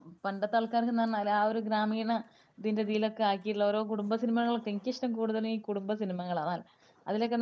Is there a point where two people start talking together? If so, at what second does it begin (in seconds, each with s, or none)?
none